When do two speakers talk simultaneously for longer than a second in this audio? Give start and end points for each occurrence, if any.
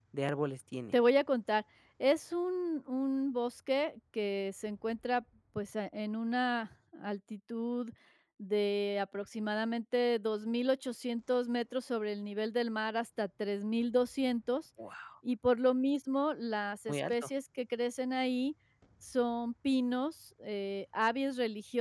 none

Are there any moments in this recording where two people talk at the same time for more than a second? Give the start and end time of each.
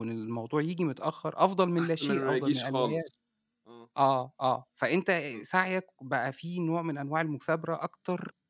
1.8-3.0

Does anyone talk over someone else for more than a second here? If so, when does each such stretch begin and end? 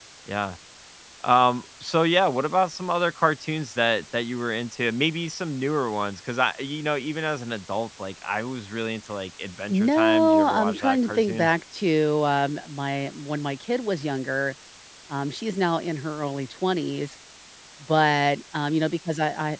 9.7-11.5

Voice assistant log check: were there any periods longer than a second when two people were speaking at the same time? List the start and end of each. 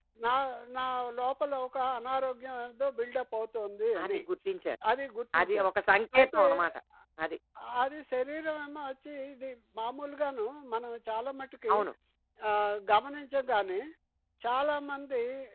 none

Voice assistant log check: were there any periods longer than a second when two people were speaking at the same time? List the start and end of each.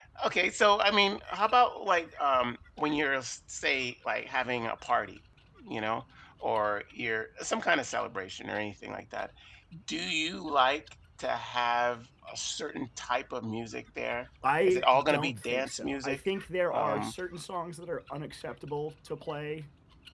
14.6-16.2

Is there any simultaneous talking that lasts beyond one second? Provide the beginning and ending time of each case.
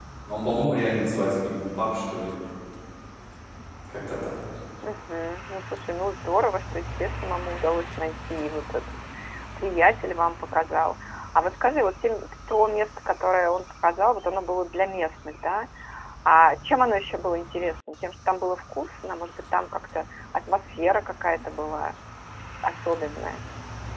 none

